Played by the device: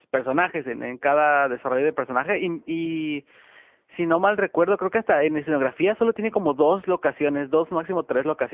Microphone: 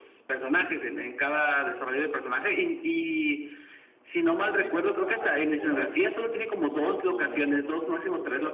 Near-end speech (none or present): present